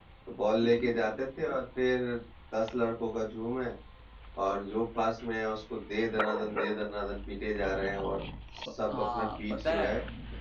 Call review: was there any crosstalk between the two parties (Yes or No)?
Yes